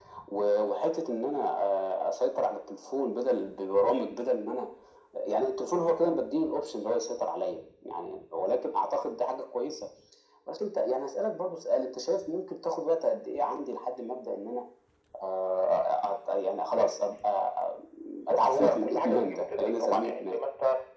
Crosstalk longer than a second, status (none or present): present